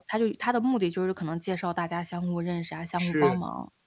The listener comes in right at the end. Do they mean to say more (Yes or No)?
Yes